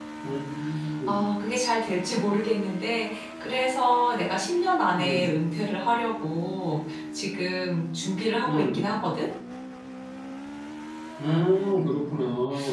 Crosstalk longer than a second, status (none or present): none